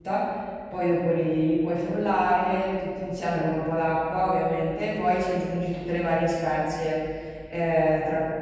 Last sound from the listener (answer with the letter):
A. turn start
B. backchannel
B